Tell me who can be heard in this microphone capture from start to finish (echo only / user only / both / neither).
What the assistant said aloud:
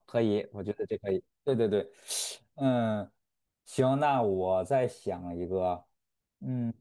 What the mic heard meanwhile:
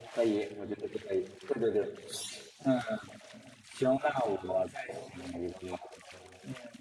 echo only